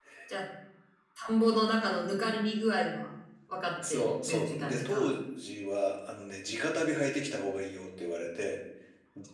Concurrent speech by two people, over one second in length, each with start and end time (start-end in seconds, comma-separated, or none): 3.9-5.1